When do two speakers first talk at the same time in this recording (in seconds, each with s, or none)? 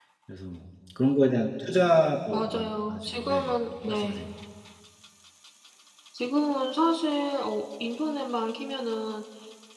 2.3 s